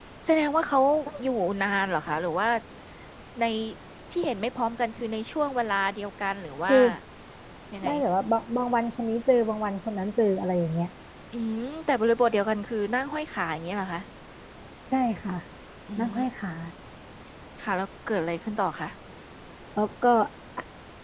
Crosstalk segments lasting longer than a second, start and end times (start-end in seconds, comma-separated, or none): none